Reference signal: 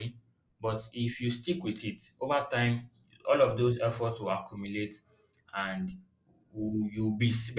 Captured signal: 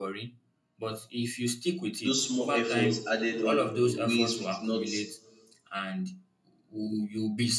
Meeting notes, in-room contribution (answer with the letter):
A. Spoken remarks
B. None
A